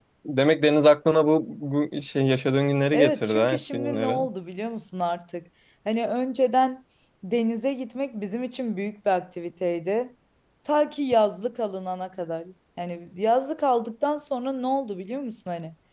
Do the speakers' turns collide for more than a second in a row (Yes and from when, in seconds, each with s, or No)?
Yes, from 2.9 s